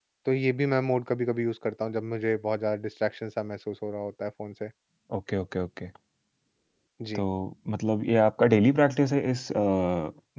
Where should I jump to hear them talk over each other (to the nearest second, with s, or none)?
none